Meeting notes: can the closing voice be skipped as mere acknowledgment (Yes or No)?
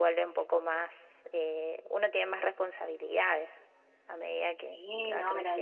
No